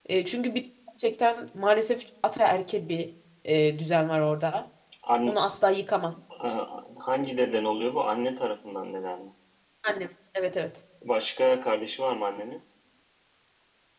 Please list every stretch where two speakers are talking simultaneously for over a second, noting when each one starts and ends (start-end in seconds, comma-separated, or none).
none